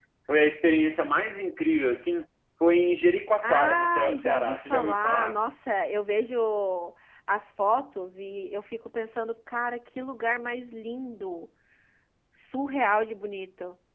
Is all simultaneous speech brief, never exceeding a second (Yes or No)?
No